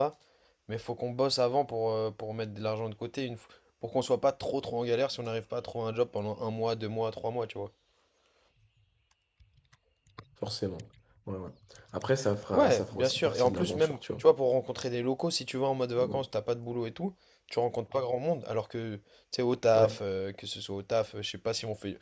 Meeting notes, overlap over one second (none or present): present